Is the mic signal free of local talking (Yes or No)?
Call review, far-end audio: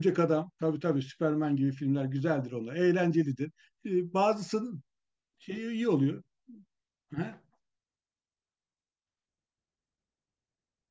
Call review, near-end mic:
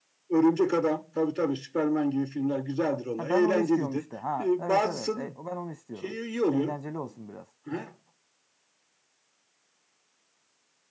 No